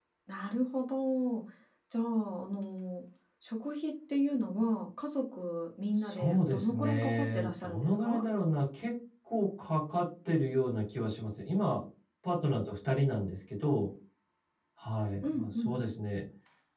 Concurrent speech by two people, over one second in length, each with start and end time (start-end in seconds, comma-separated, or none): 6.0-8.2